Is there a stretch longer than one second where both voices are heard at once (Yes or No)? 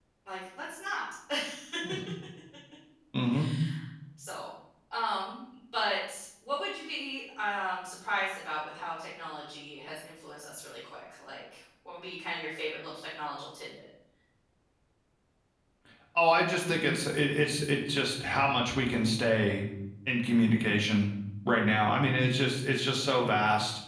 No